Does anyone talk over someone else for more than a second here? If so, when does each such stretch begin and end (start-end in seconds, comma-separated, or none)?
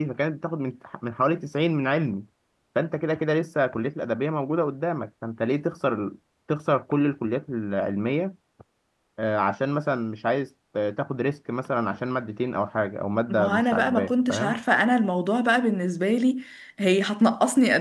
13.3-14.5